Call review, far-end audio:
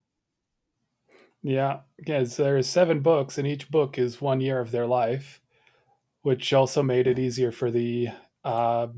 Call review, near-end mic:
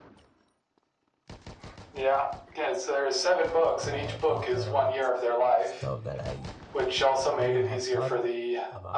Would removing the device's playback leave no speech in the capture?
No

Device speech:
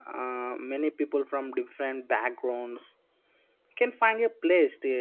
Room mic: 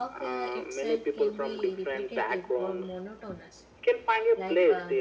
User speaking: Yes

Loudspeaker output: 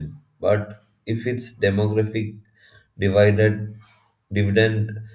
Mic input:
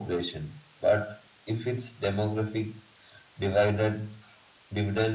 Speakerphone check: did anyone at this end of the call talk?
No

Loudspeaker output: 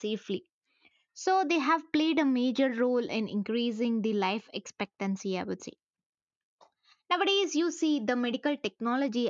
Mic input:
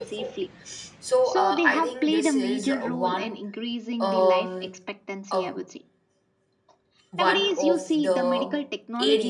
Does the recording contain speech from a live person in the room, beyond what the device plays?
Yes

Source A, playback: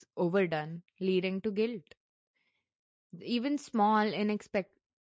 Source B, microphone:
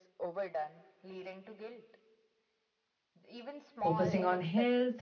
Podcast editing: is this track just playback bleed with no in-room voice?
No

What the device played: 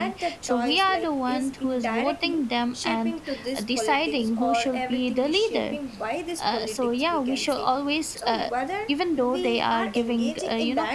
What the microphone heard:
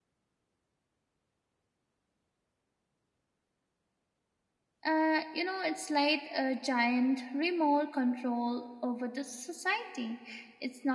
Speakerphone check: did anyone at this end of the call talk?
Yes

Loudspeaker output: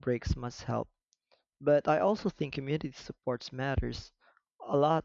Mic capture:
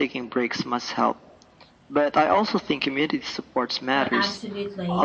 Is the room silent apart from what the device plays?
No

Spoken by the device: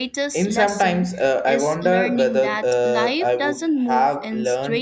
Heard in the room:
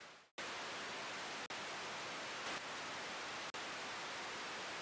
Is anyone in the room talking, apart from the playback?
No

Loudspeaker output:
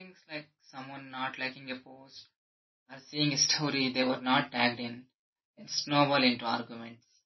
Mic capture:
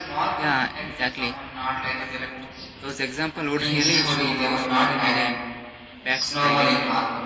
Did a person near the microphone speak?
Yes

